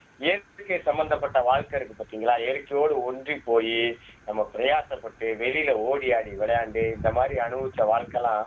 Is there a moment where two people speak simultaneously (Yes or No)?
No